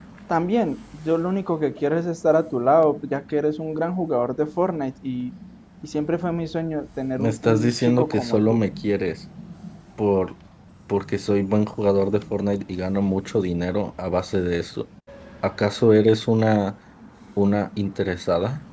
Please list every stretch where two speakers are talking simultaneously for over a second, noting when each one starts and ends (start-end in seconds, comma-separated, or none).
7.2-8.6